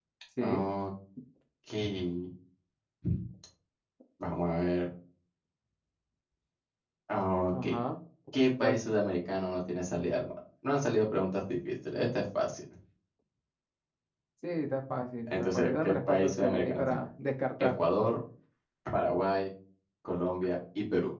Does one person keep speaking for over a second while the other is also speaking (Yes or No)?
Yes